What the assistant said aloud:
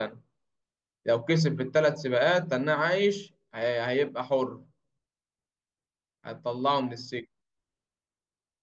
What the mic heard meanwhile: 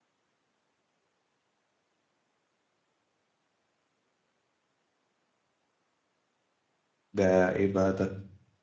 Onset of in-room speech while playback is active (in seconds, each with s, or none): 7.1 s